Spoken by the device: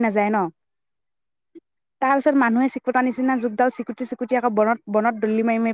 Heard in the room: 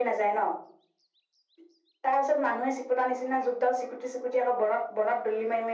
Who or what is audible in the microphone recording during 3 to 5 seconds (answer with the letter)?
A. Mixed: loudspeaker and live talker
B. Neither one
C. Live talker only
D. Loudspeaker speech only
D